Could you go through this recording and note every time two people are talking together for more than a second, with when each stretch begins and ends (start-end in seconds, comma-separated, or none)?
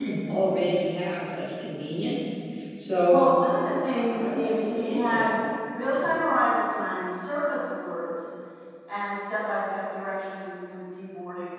4.0-5.3